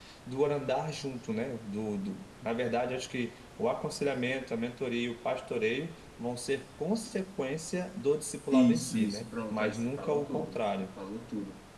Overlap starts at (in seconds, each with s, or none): 8.5 s